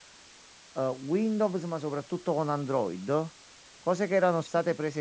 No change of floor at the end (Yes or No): Yes